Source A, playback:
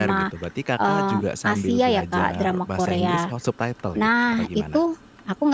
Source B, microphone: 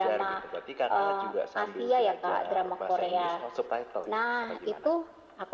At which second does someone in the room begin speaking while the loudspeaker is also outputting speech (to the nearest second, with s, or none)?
none